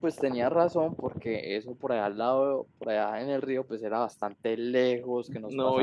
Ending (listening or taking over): taking over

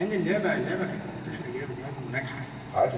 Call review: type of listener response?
taking over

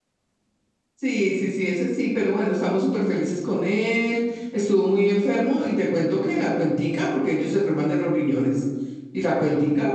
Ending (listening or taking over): listening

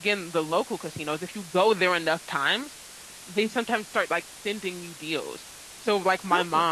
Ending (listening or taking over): listening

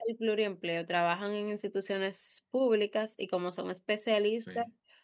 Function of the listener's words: listening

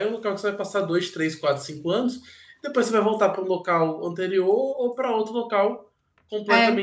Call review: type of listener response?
listening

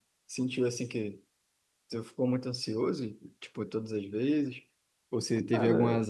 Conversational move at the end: listening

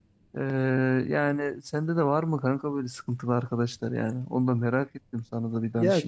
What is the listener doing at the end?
taking over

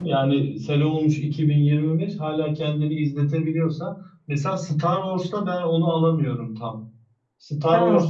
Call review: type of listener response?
listening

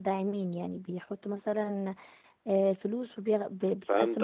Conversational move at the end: taking over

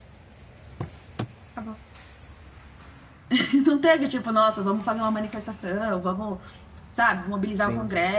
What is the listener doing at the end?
listening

